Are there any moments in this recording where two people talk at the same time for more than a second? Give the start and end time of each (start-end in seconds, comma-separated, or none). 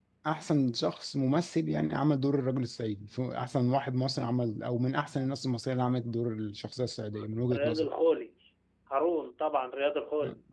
none